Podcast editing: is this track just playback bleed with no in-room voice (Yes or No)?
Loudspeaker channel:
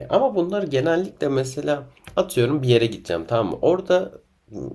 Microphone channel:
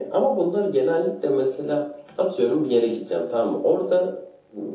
Yes